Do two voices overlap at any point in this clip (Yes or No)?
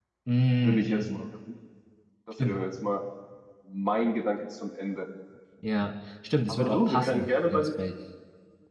Yes